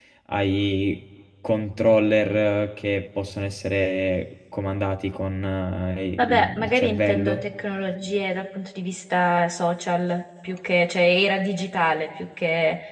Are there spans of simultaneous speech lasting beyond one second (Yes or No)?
Yes